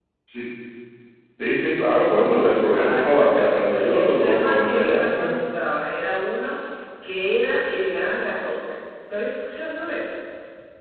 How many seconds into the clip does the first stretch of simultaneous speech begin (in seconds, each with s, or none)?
2.7 s